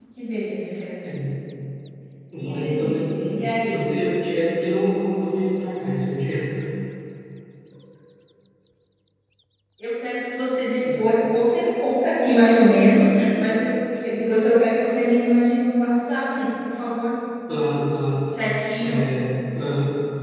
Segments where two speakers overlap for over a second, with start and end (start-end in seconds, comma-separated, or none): 2.4-3.8